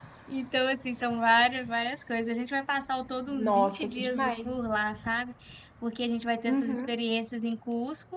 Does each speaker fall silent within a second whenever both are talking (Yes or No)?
No